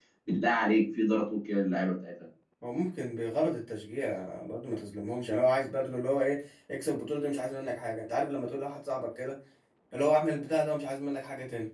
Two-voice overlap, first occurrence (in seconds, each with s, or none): none